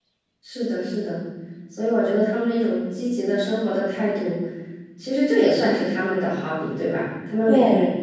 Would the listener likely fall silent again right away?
Yes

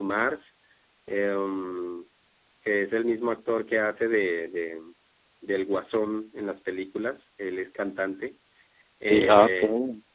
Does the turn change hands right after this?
No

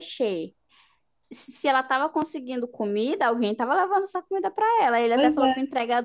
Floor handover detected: No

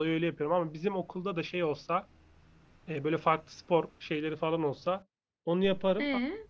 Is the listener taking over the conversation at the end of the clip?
No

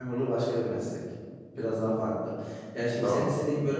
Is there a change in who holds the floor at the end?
No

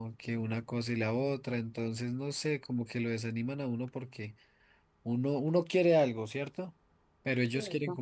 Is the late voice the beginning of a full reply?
No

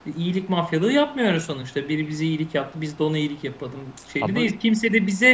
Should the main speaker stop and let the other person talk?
No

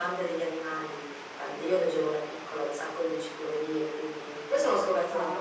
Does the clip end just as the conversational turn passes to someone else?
No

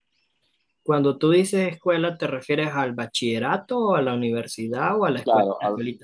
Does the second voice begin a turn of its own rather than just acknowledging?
Yes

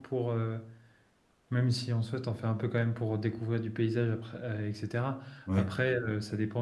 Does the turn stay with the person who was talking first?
Yes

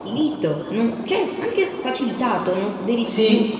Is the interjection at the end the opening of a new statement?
Yes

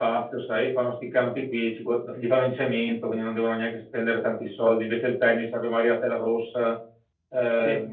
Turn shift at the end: No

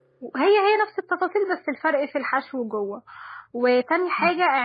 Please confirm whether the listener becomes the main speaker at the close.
No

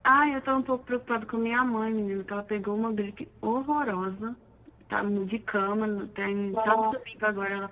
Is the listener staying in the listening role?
Yes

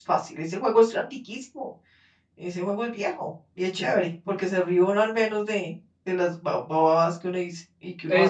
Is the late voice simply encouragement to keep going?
No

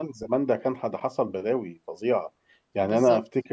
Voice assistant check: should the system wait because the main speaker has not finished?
Yes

